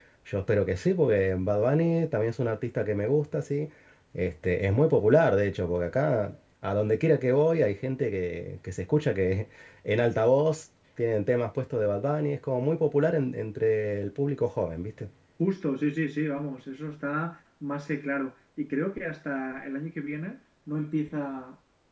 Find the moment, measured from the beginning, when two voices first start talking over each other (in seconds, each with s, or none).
none